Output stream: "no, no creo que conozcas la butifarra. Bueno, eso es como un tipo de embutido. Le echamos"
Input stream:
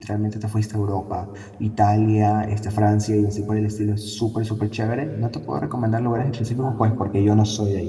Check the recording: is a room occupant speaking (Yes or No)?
Yes